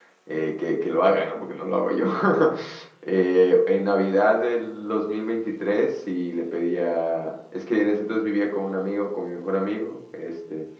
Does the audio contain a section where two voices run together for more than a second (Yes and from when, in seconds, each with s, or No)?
No